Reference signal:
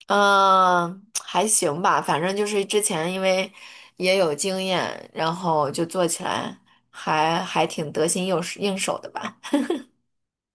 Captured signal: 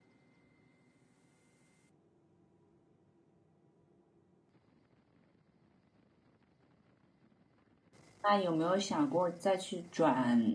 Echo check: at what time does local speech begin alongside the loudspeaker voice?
8.2 s

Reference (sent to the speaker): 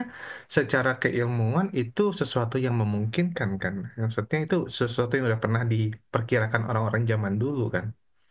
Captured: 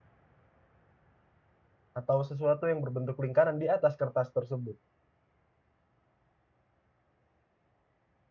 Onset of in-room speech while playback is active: 2.0 s

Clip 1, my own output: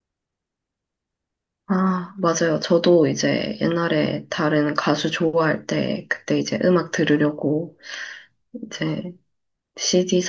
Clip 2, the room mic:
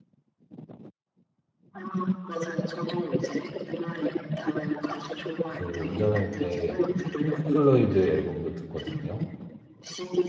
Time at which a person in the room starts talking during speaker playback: 5.5 s

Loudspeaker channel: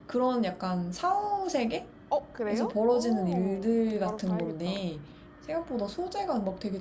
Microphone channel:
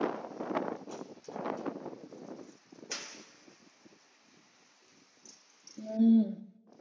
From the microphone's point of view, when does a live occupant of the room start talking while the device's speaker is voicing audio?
5.8 s

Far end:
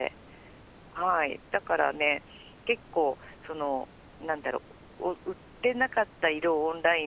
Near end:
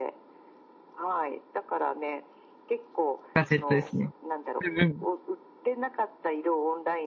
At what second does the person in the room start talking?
3.3 s

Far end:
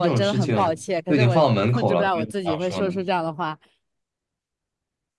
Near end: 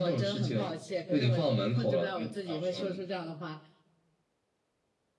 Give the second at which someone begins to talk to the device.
none

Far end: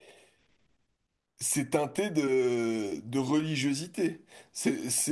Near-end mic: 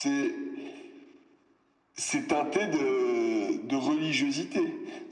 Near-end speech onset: none

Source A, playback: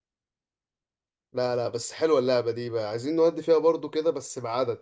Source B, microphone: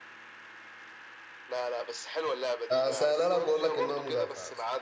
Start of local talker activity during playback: 2.7 s

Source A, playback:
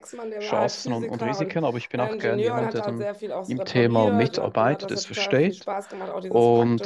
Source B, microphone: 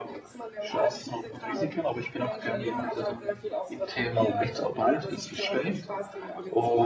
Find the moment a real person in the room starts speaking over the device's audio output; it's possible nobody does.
none

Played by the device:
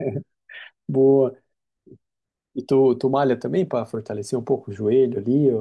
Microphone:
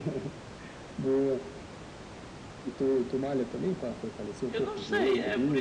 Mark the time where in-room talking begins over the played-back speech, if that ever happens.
4.5 s

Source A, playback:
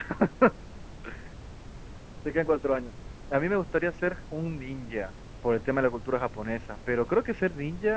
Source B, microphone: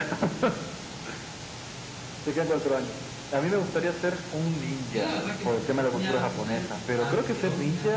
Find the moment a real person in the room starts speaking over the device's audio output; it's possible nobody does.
4.8 s

